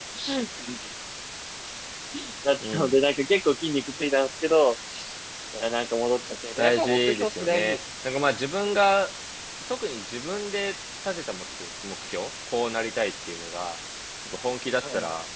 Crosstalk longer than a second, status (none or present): present